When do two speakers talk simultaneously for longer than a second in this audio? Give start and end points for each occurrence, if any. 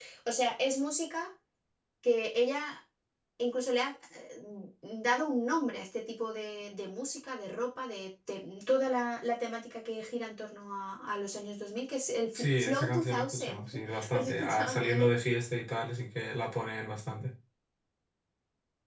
12.3-15.1

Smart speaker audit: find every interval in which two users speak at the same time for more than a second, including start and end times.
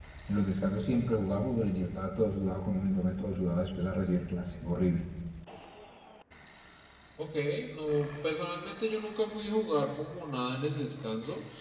none

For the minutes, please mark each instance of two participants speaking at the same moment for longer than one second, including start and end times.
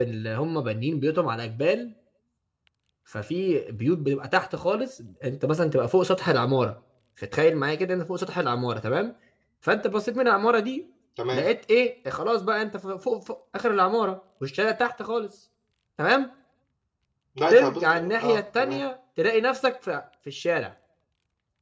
17.5-18.8

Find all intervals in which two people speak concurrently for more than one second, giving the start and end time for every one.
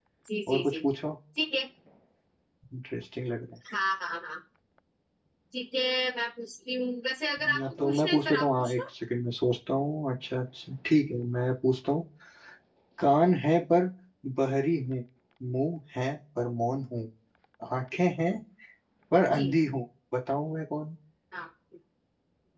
7.5-8.8

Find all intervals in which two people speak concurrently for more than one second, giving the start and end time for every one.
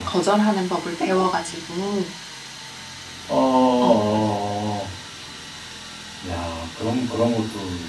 none

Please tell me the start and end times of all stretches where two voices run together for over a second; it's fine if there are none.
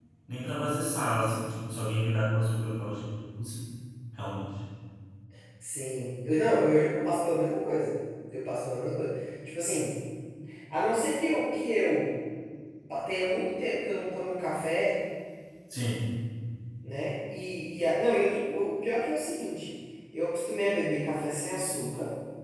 none

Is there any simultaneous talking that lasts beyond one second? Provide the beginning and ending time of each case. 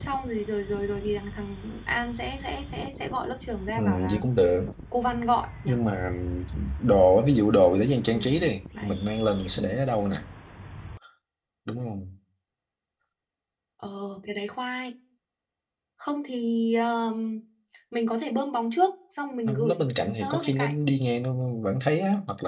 19.4-20.7

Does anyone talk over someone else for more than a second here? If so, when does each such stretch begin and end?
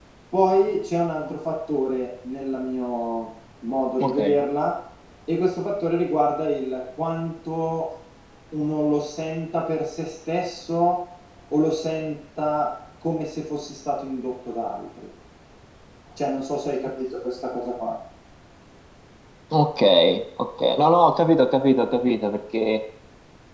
none

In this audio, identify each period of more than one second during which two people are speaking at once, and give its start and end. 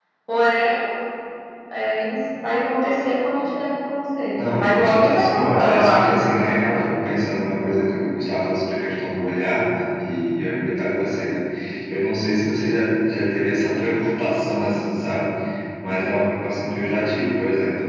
4.6-7.0

